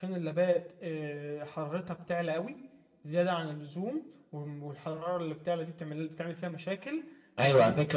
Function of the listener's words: taking over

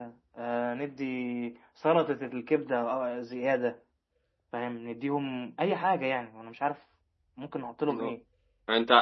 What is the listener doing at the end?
taking over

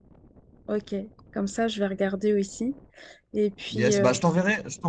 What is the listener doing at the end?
taking over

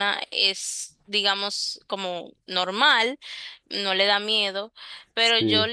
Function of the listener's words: listening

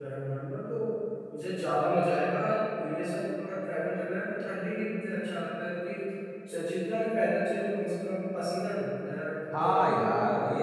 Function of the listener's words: taking over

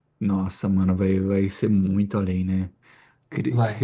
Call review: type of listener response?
listening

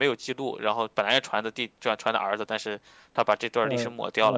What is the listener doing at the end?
taking over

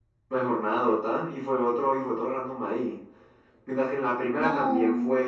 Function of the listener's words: listening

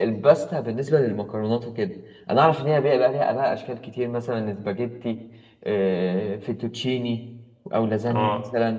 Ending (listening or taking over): listening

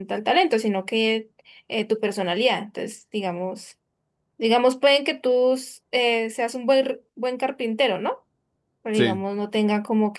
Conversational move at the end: listening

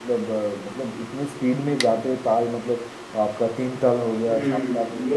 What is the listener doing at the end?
taking over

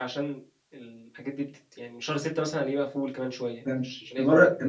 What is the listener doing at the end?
taking over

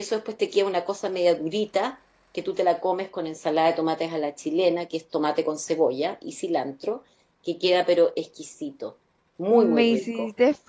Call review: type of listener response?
taking over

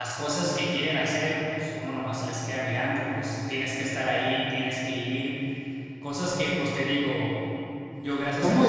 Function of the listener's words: taking over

